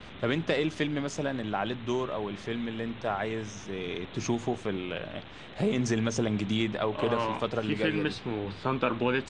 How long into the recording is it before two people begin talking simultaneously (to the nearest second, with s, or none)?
7 s